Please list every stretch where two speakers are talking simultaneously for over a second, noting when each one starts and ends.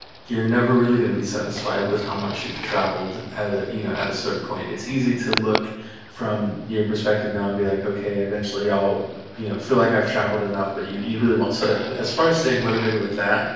none

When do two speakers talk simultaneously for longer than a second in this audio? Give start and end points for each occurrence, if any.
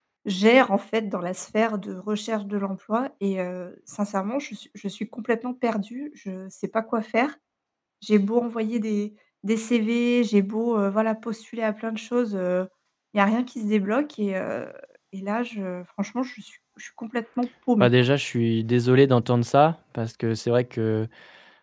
none

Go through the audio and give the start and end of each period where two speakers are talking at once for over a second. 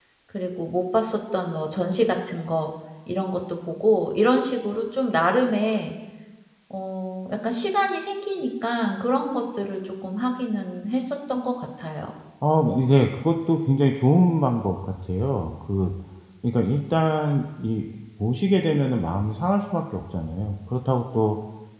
none

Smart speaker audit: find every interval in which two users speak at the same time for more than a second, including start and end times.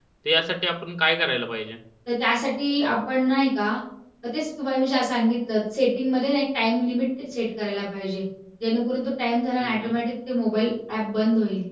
none

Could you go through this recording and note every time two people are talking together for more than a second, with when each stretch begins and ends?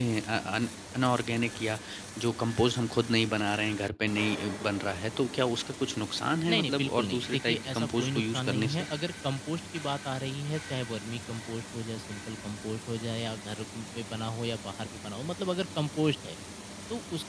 6.5-8.9

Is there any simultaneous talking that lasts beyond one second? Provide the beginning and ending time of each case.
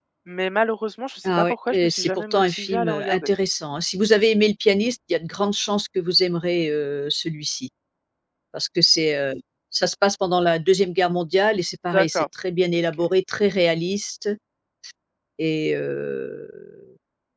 1.2-3.3

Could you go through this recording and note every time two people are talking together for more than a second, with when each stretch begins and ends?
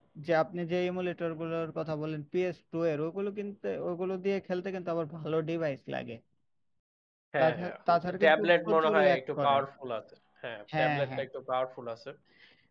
8.2-9.6

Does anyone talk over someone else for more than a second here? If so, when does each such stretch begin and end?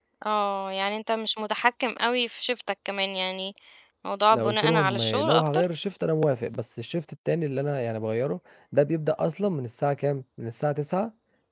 4.3-5.6

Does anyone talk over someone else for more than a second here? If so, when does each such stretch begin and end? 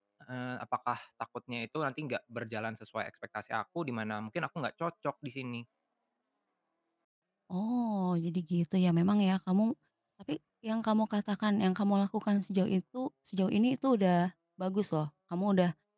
none

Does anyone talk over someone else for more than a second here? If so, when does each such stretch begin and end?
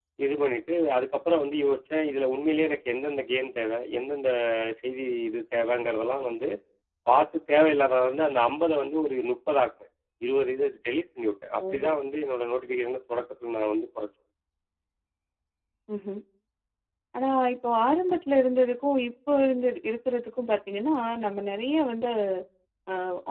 none

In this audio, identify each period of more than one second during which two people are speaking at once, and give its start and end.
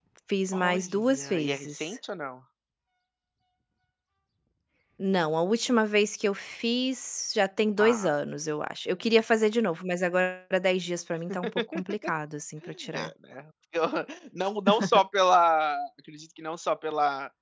0.5-2.0

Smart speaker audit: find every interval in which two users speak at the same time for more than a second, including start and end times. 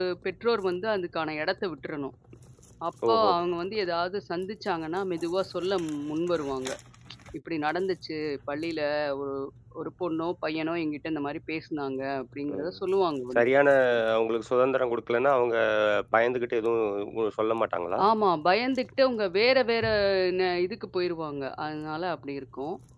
none

